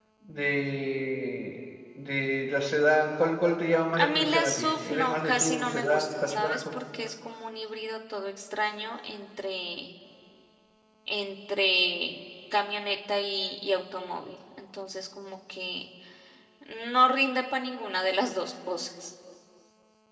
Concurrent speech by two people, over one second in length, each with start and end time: 4.0-6.6

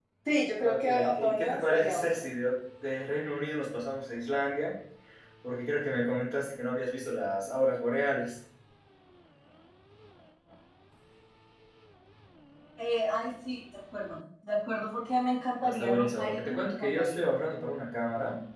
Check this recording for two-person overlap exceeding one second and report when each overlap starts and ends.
0.6-2.2, 15.6-17.3

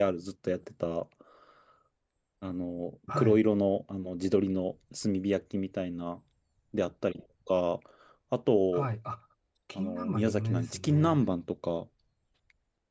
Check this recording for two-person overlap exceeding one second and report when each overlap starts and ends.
9.8-11.2

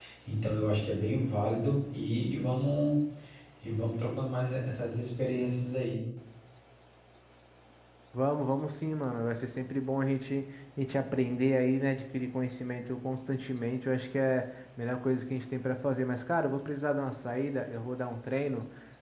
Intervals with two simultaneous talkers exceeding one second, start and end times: none

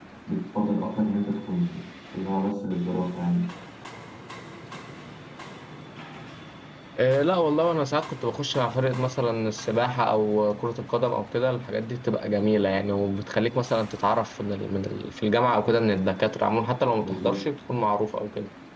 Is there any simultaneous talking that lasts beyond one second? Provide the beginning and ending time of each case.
none

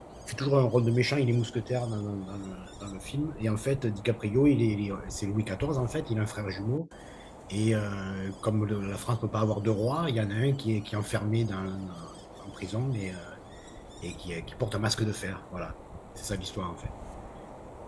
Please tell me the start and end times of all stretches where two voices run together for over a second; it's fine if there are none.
none

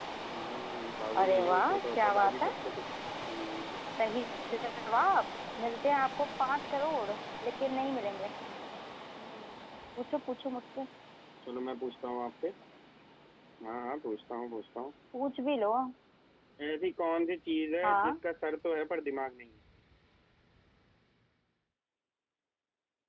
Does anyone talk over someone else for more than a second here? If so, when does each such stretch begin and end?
1.2-2.5

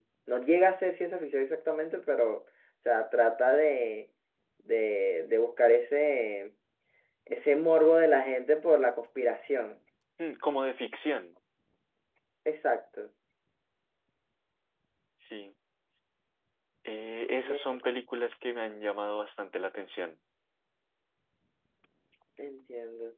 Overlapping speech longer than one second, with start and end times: none

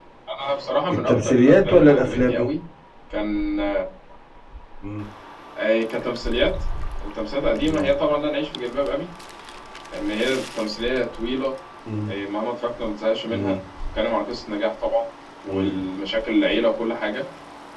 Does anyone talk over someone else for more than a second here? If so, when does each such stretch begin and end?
1.1-2.5

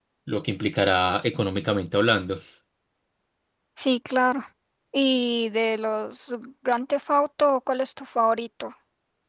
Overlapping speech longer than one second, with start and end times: none

